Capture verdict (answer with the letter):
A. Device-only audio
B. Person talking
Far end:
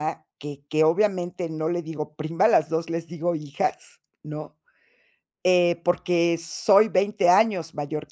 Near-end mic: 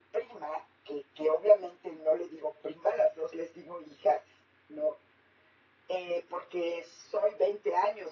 A